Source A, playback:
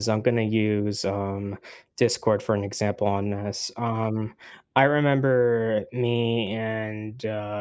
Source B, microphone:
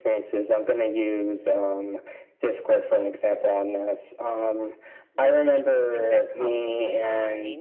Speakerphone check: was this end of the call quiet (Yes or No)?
No